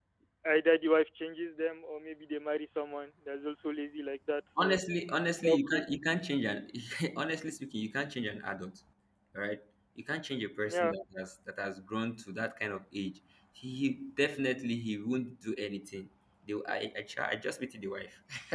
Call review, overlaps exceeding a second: none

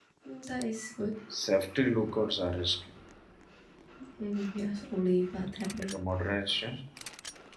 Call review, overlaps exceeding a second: none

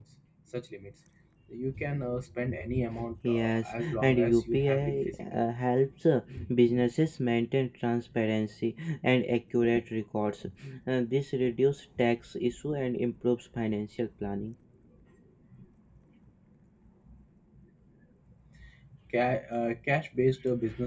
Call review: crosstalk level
present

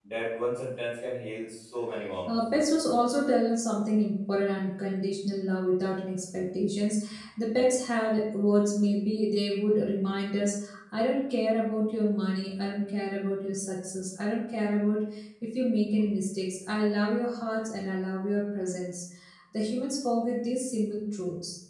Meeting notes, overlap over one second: none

